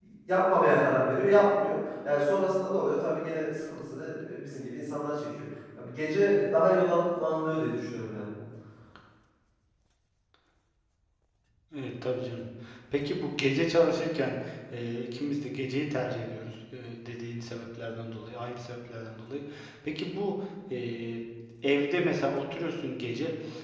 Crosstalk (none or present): none